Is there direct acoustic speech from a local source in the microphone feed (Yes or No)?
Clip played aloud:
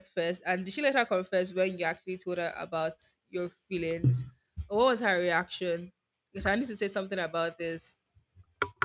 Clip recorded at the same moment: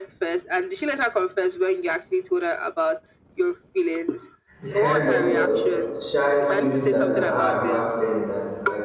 Yes